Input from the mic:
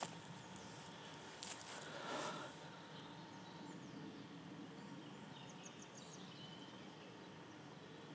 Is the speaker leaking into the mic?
No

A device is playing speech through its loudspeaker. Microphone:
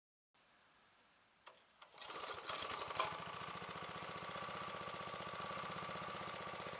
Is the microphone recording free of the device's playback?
Yes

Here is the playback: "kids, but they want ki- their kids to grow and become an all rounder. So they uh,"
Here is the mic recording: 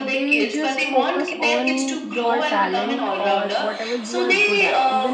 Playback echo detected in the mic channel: Yes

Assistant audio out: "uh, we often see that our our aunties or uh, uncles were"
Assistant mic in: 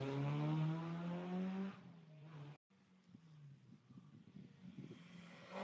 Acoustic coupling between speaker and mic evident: No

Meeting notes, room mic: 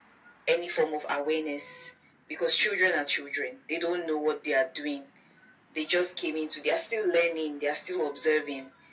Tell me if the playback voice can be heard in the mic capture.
Yes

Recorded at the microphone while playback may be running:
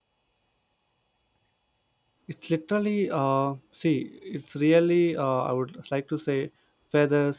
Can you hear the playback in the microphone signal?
No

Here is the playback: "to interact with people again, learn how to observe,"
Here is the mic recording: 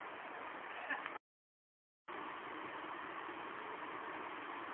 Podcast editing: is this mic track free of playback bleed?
Yes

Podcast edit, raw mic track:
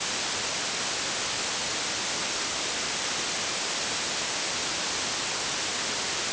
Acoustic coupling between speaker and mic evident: No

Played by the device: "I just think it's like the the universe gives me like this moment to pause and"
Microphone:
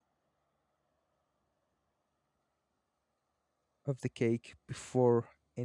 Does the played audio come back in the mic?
No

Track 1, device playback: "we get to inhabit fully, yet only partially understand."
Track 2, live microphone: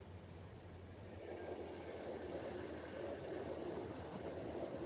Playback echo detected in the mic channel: No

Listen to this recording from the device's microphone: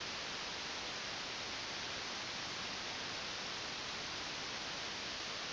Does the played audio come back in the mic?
No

